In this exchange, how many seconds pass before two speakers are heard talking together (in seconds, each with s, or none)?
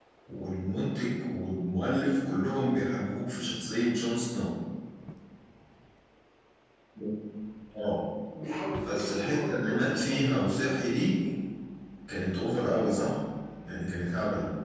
8.8 s